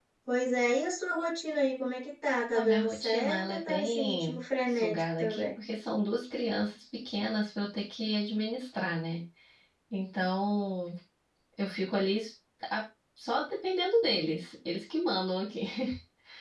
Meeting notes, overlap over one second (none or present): present